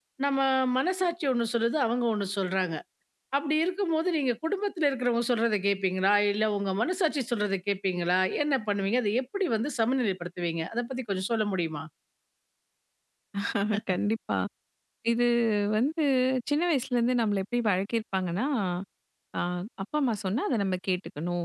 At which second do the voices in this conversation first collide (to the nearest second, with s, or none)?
none